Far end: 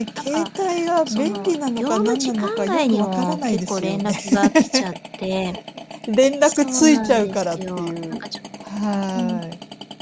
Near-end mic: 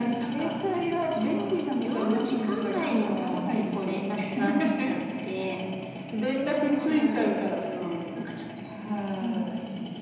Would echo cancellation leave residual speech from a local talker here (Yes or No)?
No